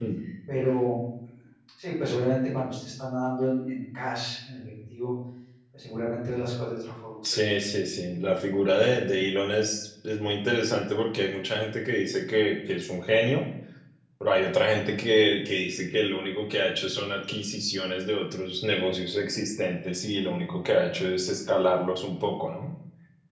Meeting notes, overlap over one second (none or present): none